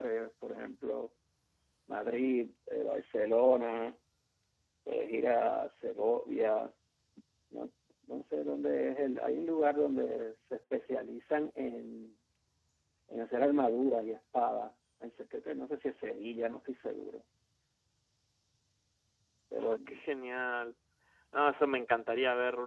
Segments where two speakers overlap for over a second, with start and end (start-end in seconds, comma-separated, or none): none